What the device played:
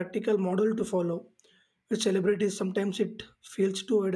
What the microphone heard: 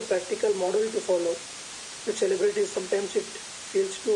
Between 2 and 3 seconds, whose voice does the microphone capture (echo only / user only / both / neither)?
echo only